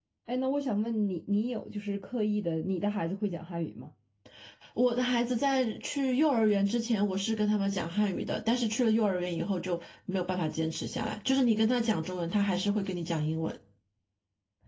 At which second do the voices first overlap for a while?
none

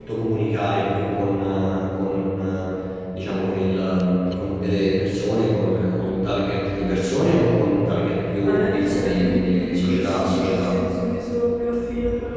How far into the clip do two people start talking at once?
8.4 s

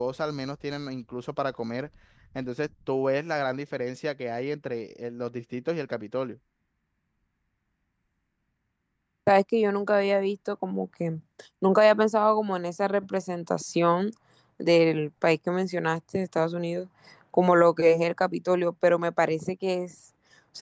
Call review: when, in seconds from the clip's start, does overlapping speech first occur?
none

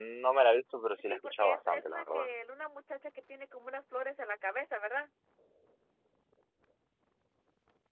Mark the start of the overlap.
1.0 s

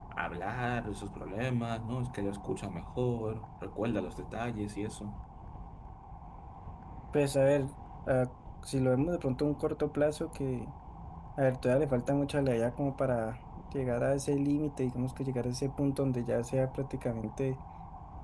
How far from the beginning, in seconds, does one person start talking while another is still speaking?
none

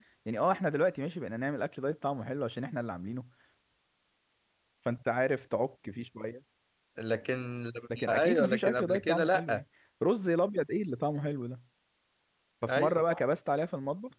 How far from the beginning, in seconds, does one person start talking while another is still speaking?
8.0 s

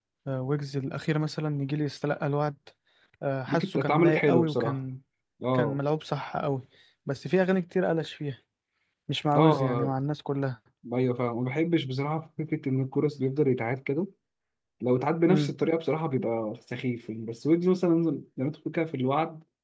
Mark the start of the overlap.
3.5 s

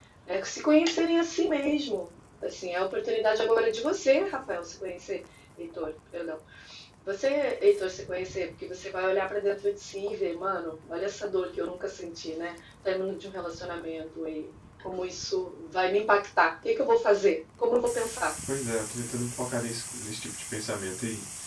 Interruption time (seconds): none

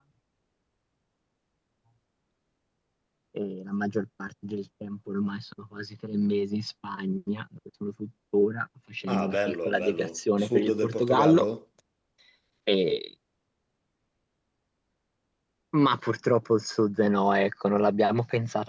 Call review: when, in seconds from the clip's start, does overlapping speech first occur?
9.1 s

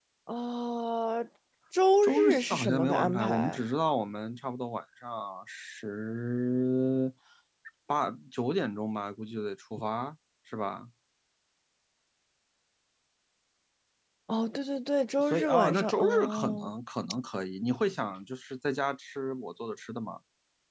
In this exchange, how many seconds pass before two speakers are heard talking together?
2.0 s

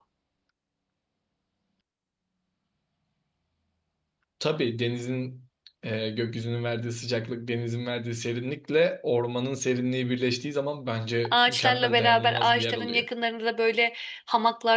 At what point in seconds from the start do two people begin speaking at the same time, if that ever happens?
11.2 s

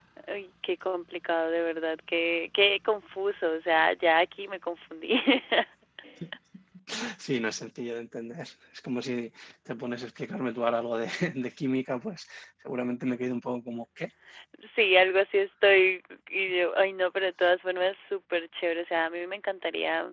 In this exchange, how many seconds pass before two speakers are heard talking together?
none

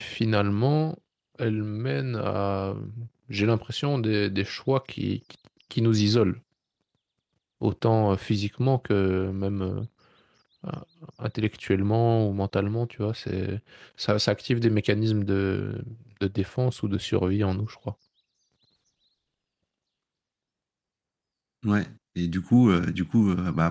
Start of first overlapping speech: none

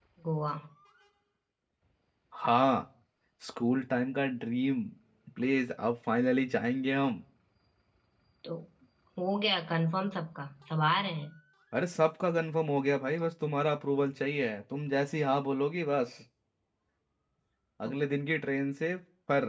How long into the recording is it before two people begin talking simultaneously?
none

